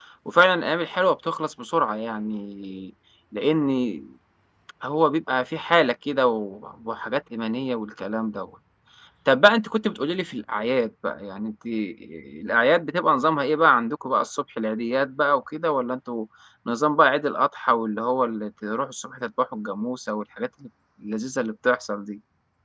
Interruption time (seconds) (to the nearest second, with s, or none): none